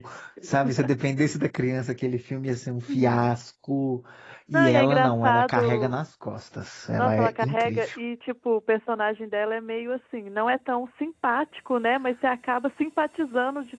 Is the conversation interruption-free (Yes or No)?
No